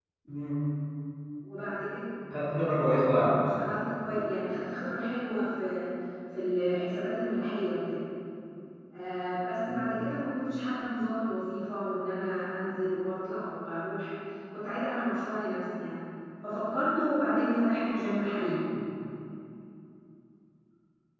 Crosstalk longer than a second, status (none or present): none